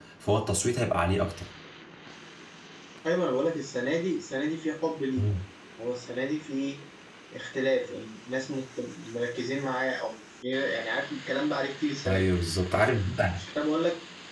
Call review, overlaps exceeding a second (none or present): none